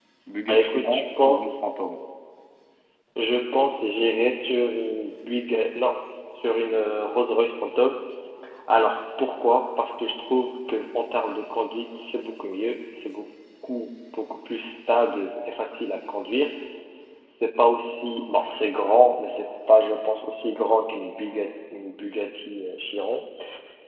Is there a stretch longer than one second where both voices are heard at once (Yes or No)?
Yes